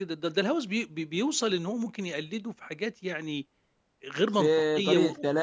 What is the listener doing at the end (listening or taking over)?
taking over